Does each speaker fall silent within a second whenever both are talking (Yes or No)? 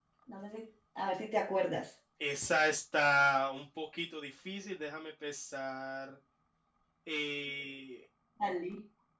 Yes